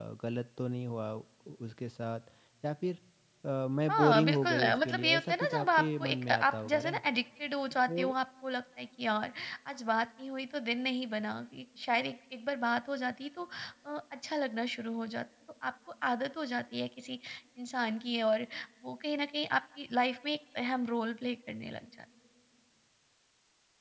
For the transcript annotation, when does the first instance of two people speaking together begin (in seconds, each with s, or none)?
3.9 s